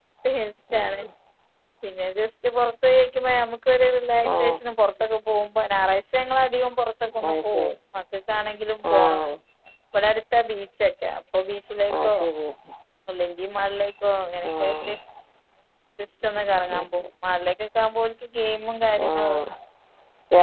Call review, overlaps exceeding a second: none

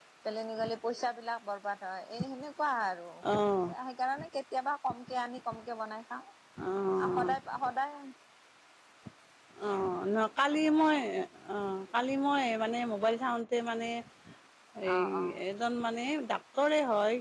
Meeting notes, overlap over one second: none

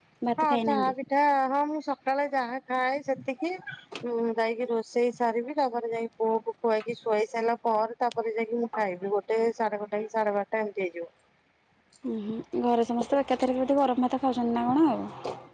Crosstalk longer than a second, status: none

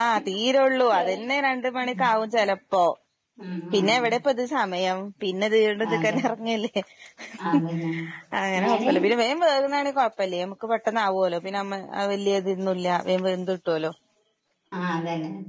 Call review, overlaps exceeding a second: none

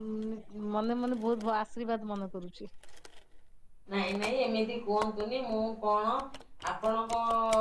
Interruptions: none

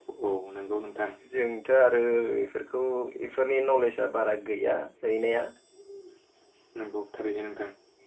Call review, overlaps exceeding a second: none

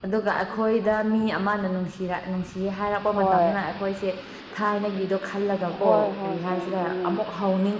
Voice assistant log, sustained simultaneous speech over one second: present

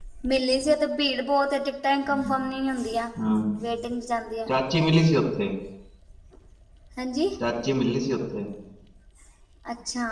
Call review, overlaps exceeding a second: none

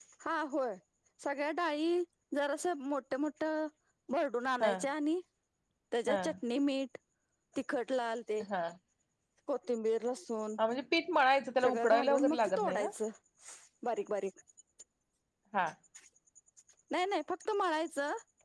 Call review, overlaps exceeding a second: present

